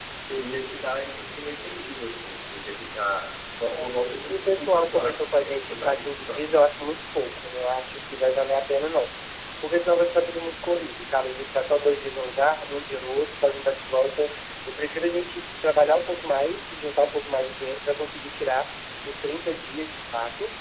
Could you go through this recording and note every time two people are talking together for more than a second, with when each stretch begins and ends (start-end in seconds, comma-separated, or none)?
3.7-6.6